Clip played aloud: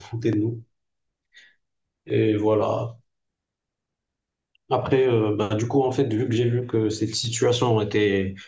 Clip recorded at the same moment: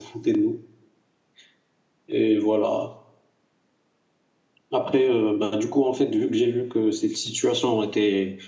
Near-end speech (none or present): none